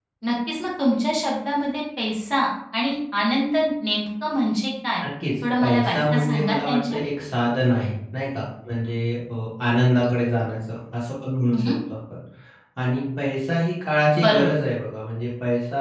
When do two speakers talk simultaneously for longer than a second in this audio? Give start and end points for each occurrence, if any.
5.6-7.0

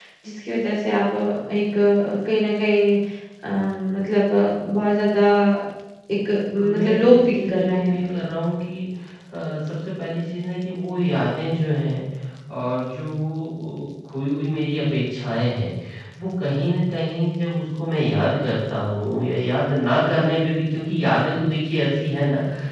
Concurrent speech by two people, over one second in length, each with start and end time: 6.7-8.2

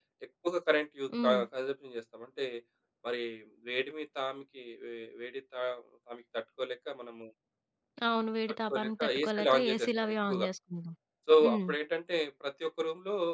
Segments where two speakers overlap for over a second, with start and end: 8.7-10.5

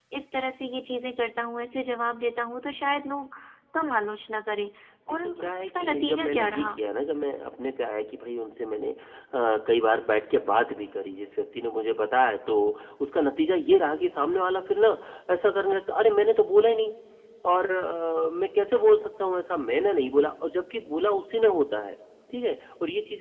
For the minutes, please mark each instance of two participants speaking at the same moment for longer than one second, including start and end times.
5.1-6.7

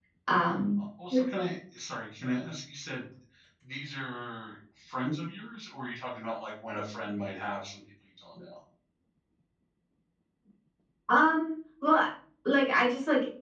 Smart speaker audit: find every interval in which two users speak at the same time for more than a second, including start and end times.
none

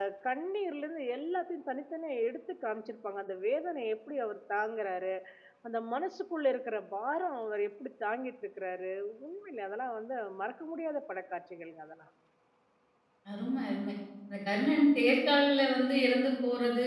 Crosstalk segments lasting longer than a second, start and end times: none

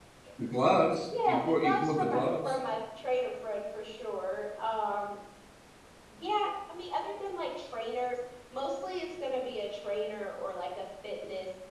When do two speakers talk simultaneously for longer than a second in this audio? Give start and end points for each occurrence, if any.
1.2-2.6

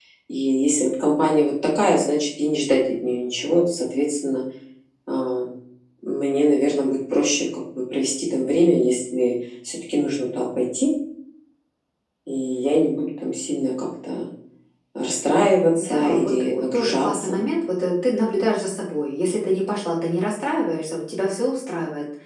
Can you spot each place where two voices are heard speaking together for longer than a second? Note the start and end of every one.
15.8-17.4

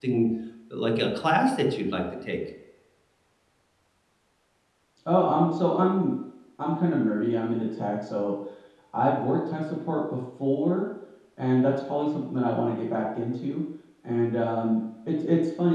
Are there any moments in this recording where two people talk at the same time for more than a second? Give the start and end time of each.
none

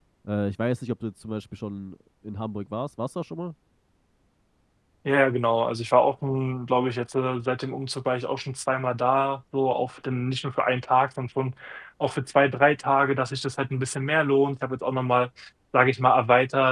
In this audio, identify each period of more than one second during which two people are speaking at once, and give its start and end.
none

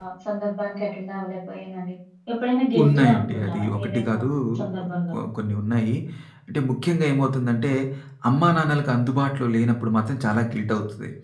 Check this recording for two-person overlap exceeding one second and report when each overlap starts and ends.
2.8-4.2

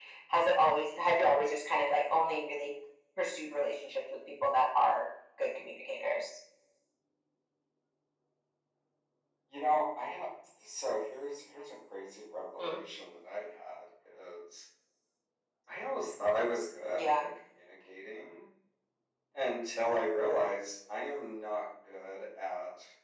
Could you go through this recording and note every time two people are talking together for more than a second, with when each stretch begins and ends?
none

